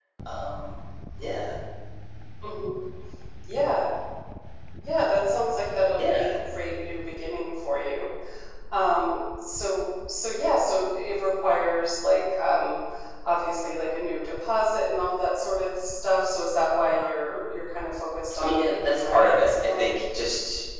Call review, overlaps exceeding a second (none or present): present